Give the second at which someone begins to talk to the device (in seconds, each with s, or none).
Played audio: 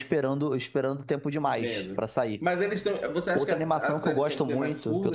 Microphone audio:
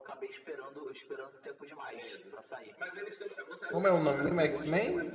3.7 s